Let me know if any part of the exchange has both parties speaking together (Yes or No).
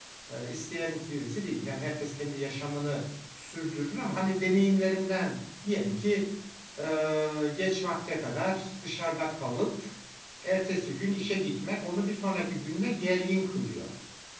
No